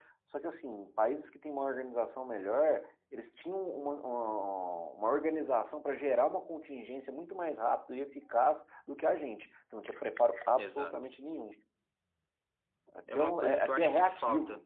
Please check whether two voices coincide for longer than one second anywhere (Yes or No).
Yes